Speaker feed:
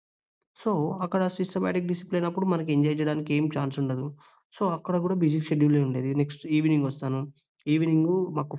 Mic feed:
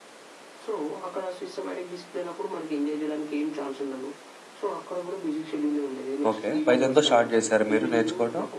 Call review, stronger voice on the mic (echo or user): user